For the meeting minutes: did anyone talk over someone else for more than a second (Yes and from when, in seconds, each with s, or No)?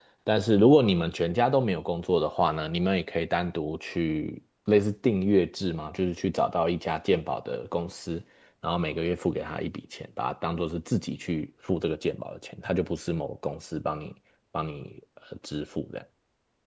No